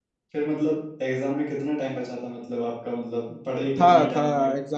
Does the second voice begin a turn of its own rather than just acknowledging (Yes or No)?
Yes